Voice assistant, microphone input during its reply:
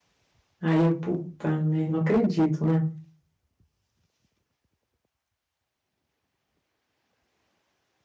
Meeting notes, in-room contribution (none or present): present